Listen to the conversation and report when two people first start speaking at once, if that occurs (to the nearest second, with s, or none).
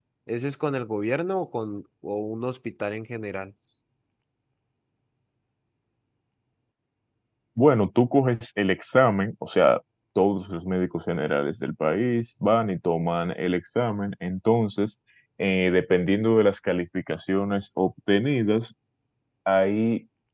none